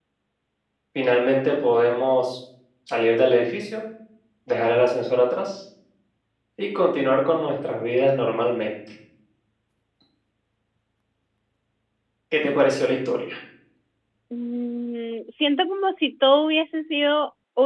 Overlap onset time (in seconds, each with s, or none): none